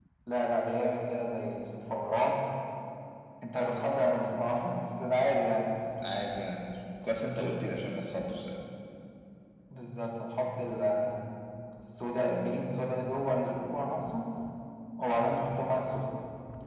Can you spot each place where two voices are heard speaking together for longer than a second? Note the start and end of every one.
none

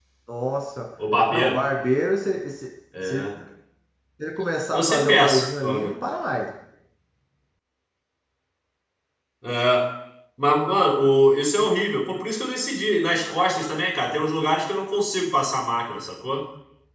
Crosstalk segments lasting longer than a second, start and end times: 4.7-5.9

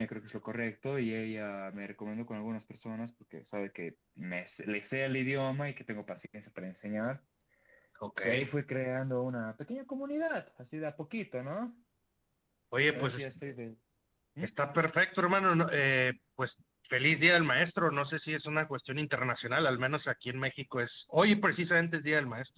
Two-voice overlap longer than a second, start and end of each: none

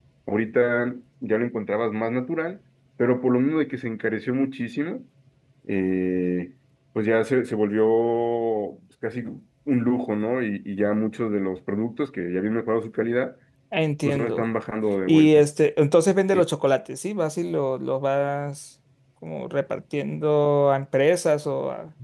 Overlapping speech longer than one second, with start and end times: none

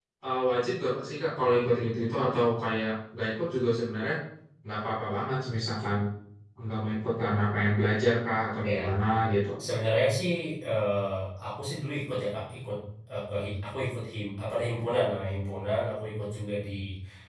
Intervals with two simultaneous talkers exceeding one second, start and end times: none

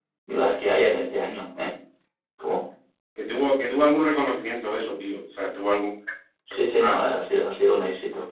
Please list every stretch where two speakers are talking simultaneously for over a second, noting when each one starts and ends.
none

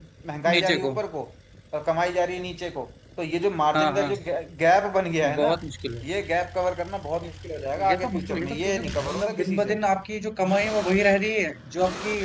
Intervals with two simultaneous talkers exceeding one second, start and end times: 7.9-9.8

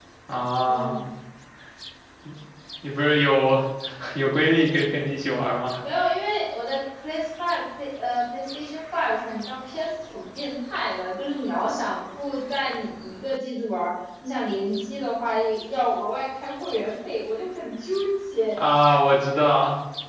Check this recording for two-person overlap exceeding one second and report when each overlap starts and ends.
none

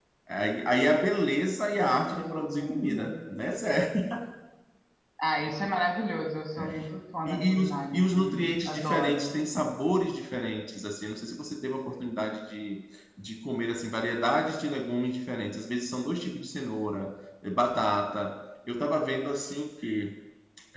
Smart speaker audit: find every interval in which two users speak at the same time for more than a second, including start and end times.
1.8-3.1, 7.2-9.4

